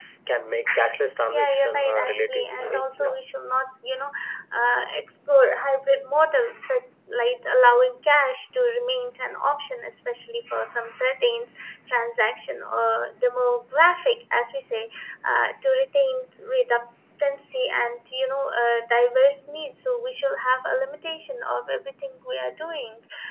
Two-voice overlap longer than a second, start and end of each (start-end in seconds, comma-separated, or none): 1.3-3.1